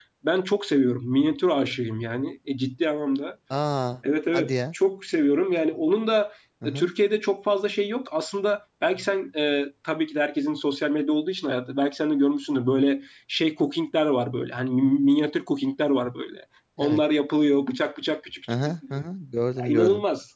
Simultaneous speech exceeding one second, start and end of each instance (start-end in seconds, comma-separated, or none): none